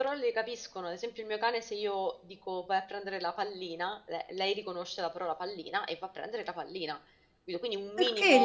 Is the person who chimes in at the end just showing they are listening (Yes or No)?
No